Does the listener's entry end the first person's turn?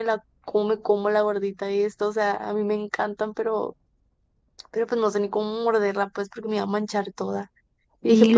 Yes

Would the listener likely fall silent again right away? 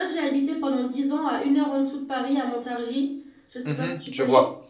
No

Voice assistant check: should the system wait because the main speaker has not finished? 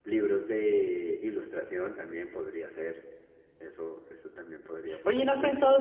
No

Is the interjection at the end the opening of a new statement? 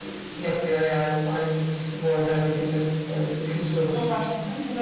Yes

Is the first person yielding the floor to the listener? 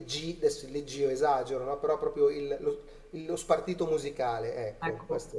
Yes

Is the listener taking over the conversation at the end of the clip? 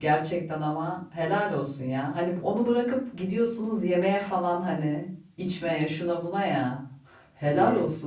No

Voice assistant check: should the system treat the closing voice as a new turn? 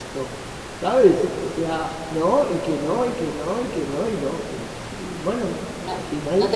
Yes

